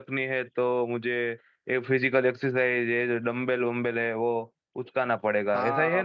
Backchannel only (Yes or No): No